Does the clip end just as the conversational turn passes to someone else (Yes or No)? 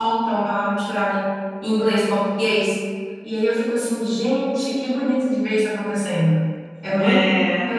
No